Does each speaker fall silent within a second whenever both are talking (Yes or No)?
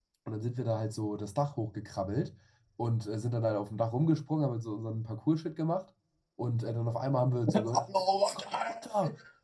No